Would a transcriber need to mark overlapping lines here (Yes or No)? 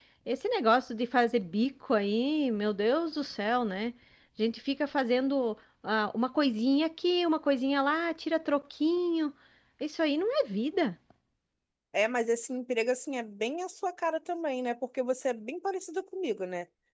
No